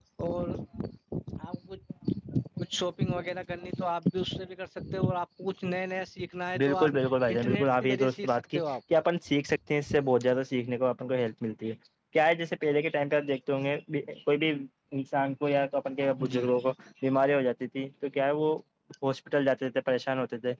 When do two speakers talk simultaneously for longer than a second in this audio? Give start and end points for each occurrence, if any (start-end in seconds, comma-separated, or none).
7.3-8.6